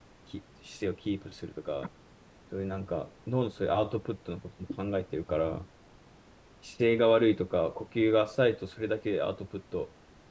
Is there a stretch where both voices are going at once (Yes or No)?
No